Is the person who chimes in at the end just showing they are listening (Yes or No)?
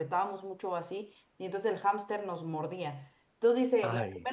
Yes